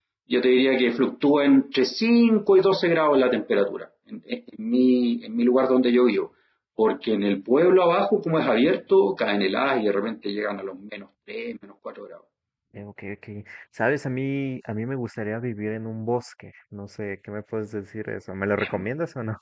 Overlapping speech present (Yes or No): No